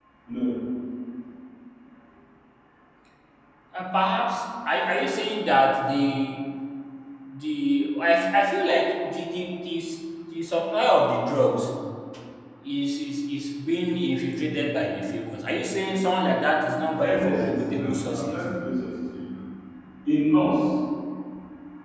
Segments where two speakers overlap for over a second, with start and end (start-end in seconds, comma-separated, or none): 17.0-18.4